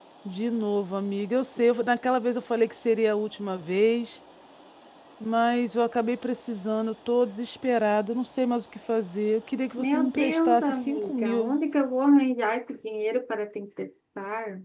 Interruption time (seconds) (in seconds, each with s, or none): 9.8 s